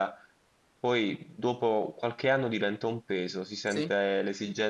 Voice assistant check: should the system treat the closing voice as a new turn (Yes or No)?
No